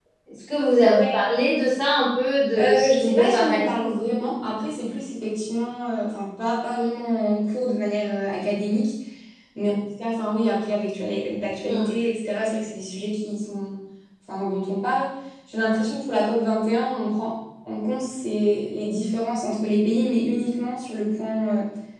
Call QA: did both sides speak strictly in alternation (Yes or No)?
No